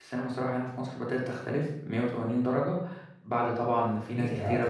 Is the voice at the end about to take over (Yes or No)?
Yes